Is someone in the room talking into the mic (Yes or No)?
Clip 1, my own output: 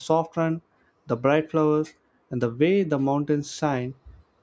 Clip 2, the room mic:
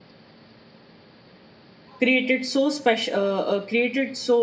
Yes